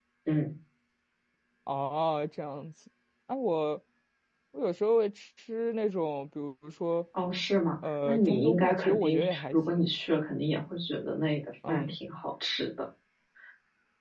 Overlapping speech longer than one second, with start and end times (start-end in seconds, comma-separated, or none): 8.1-9.9